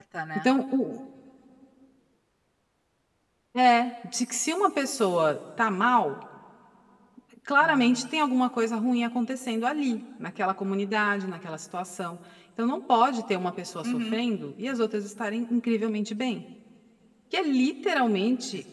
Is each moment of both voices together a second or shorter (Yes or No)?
Yes